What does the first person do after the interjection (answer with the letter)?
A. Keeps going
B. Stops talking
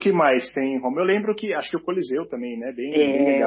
B